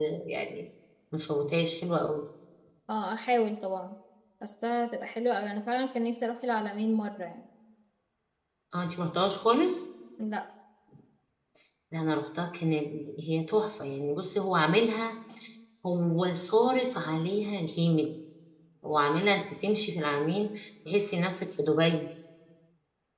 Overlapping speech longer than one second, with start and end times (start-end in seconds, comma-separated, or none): none